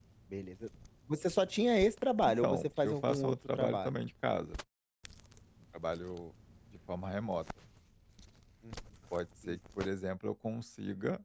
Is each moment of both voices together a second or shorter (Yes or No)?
No